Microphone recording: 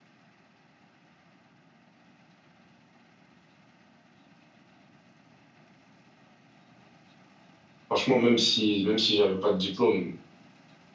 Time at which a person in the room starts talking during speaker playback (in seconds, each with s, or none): 7.9 s